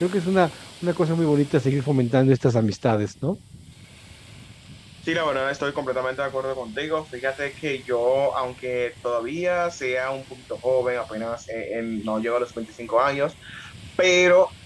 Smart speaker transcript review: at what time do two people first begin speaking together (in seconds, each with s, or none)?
none